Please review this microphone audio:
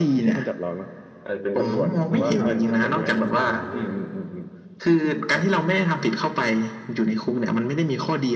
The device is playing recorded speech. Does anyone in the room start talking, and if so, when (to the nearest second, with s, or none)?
2 s